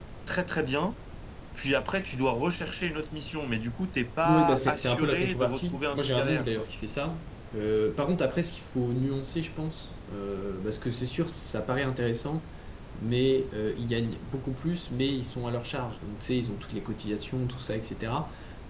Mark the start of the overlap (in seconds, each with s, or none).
4.2 s